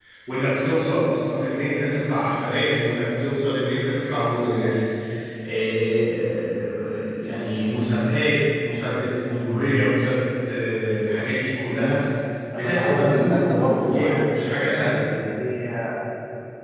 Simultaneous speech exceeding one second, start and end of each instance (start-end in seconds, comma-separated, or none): 12.5-15.0